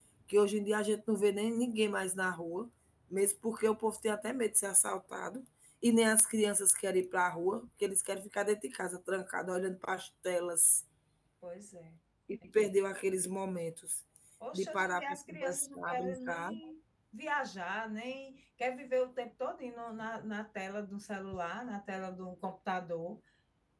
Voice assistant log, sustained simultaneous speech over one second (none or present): present